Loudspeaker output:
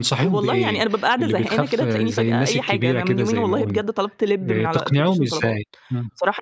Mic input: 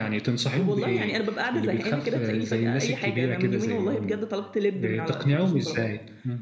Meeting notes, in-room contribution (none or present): none